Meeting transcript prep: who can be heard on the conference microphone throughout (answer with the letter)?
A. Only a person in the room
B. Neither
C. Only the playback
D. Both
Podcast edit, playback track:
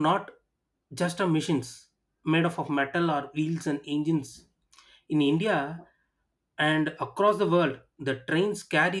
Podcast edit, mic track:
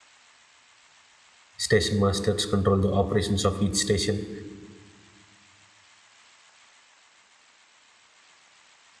A